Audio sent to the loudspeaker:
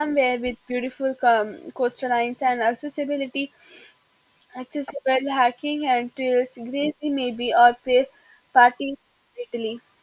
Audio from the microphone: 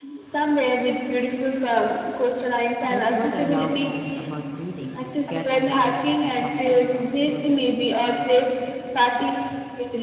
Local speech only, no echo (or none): That's what I love most about reading, getting lost in someone else's world